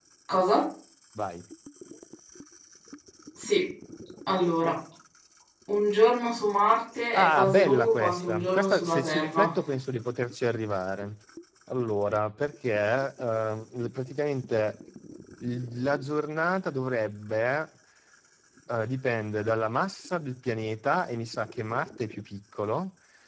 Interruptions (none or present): present